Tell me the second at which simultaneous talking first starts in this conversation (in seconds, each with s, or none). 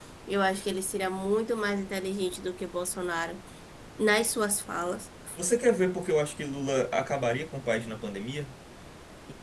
none